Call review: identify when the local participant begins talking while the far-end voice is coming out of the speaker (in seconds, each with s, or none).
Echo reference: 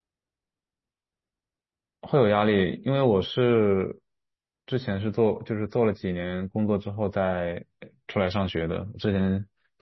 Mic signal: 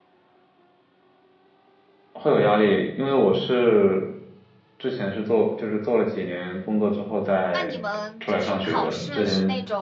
7.5 s